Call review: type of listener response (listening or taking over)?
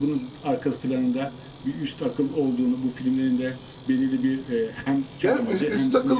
taking over